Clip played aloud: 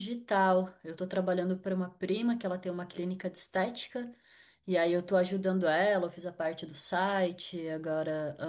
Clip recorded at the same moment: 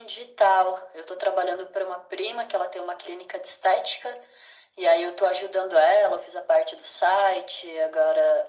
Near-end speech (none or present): none